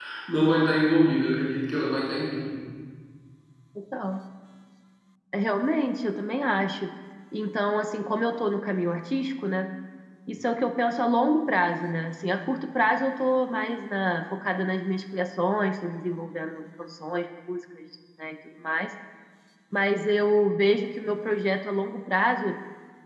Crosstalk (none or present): none